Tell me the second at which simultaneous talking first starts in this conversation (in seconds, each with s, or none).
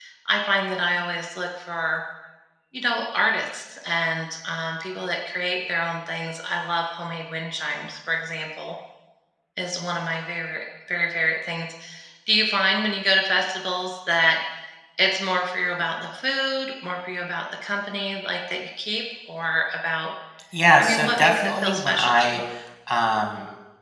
20.8 s